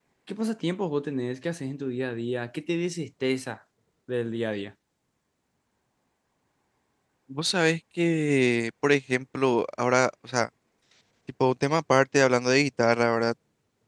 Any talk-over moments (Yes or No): No